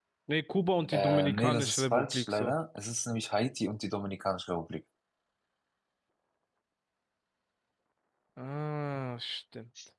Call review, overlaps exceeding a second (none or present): present